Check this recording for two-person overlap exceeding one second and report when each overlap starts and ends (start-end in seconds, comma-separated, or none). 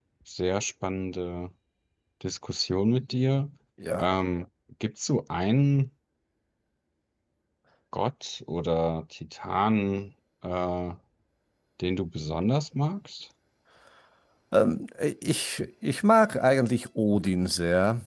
none